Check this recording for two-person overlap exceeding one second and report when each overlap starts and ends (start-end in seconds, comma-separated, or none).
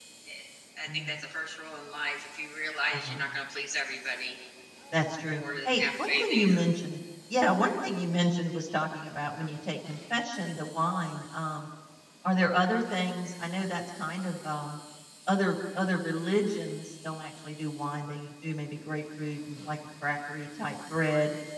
5.3-6.6